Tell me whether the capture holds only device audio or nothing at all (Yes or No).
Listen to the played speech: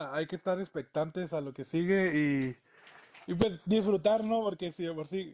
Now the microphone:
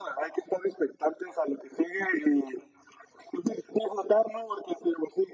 Yes